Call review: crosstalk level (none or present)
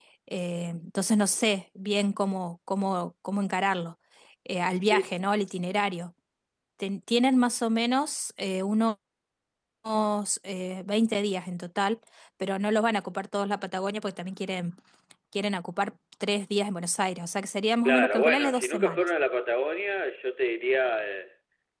present